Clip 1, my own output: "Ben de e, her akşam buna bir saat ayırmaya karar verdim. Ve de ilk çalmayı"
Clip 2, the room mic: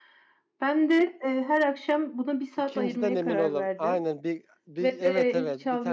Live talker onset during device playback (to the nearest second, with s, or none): 3 s